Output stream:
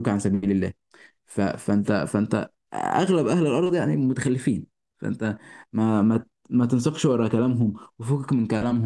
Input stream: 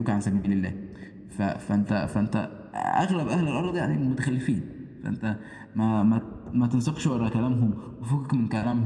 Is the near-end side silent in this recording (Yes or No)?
Yes